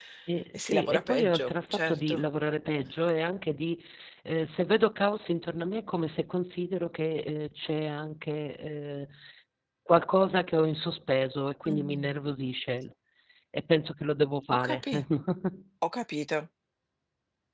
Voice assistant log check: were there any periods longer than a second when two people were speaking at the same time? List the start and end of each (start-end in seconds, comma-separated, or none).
0.5-2.2